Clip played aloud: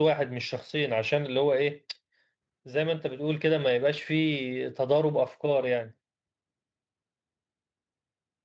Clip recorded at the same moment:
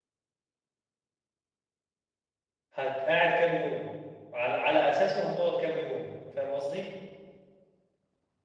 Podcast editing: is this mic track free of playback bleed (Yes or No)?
Yes